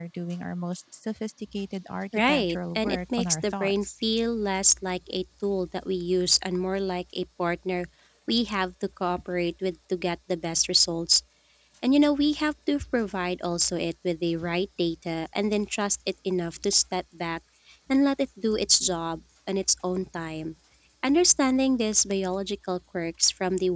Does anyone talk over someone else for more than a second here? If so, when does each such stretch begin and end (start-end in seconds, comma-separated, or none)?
2.3-3.9